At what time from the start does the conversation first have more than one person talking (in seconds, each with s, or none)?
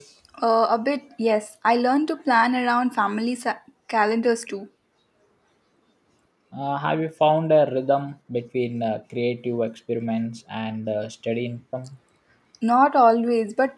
none